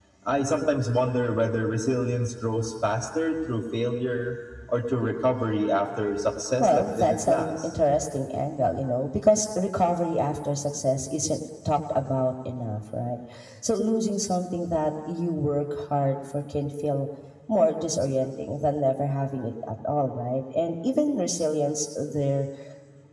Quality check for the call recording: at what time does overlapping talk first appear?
6.6 s

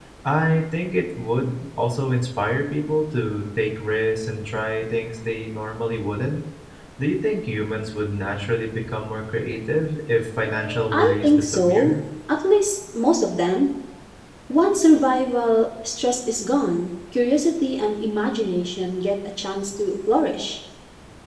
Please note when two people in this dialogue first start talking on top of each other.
10.4 s

